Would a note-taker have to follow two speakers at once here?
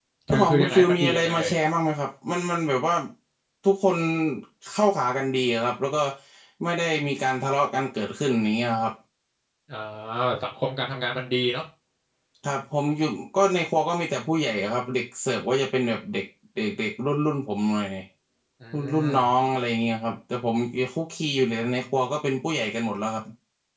Yes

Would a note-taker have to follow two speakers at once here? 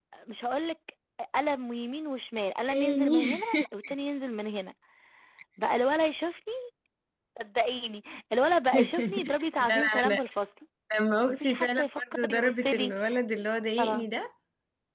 Yes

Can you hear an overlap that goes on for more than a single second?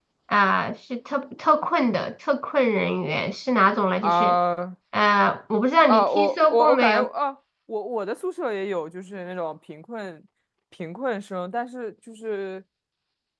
Yes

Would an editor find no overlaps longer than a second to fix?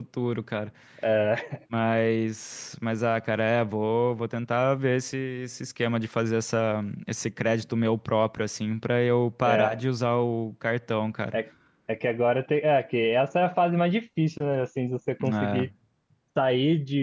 Yes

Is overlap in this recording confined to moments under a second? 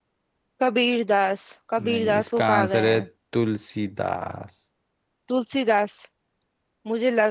No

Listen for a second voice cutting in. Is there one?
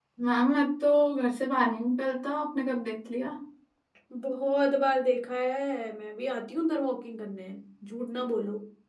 No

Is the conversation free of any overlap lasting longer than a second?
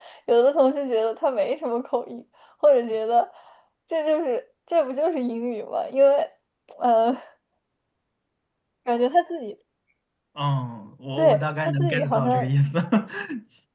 No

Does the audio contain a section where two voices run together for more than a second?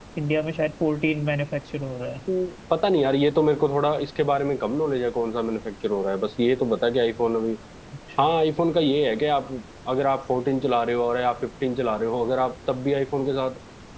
No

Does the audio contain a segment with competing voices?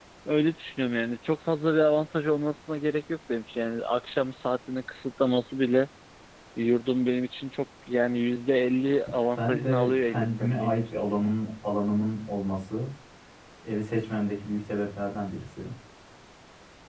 Yes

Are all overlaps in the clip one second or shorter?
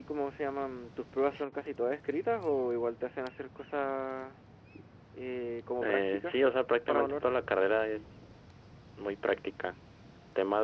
Yes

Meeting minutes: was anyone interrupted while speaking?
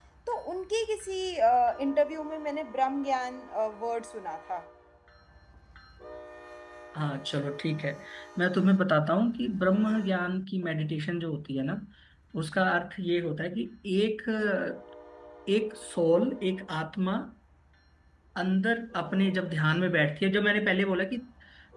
No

